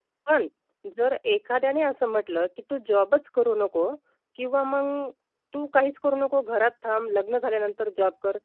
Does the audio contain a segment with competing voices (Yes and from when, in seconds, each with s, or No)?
No